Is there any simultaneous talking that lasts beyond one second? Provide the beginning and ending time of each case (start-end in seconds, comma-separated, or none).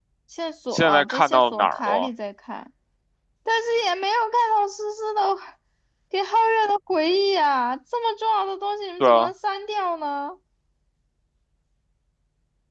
0.7-2.1